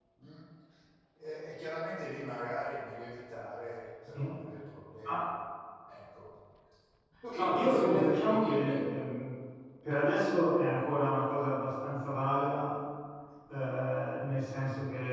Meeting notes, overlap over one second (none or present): present